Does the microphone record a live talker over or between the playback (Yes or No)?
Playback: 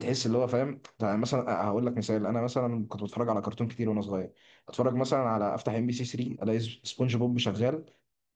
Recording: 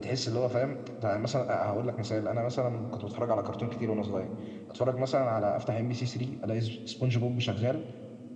No